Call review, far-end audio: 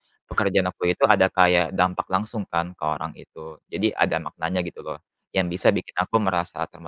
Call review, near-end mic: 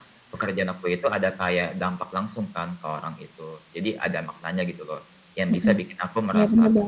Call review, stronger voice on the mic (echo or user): user